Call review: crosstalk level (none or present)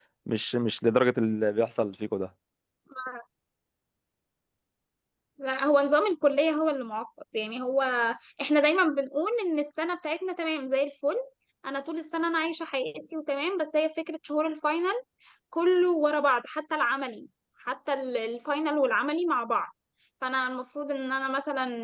none